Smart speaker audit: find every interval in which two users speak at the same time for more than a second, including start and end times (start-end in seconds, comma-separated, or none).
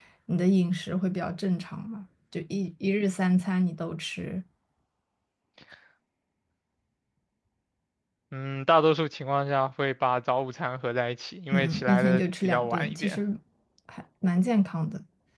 11.5-13.2